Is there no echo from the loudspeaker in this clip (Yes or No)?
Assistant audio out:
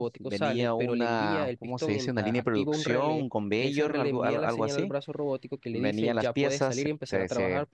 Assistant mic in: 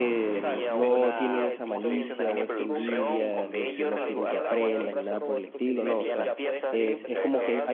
No